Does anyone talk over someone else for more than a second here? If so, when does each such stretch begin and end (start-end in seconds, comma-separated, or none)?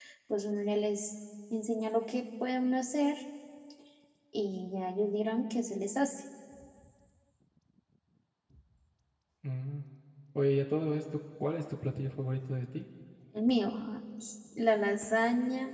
none